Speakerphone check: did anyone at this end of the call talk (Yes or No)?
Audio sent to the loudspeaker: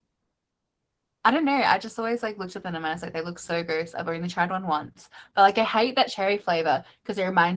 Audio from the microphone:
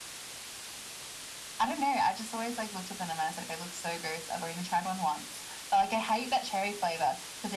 No